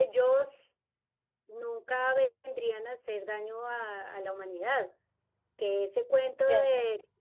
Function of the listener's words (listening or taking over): listening